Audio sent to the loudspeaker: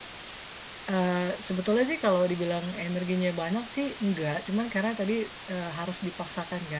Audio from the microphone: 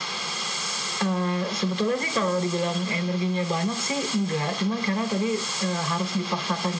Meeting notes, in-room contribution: none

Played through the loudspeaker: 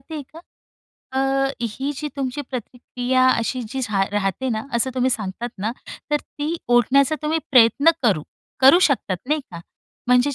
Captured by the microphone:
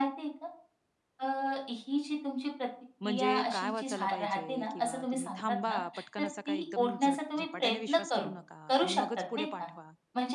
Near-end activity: present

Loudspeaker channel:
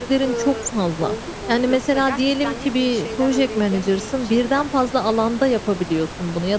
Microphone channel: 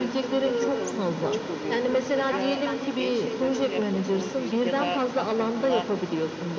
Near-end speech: present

